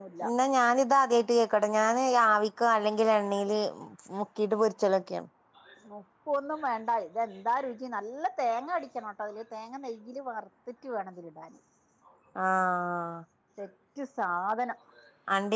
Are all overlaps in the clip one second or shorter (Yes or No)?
Yes